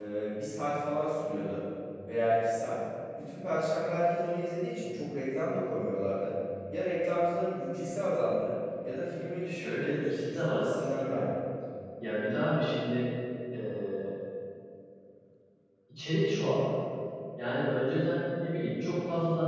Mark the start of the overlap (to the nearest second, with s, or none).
9 s